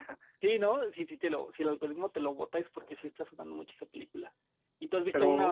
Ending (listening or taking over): listening